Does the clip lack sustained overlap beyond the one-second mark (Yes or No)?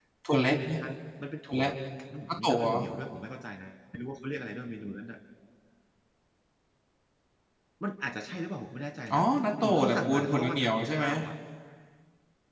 No